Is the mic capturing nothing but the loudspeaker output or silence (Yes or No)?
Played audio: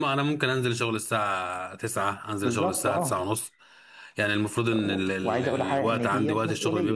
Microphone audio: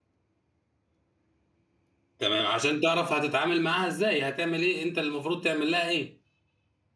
No